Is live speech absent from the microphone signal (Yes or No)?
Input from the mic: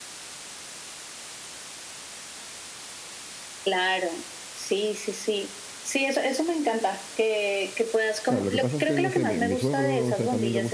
No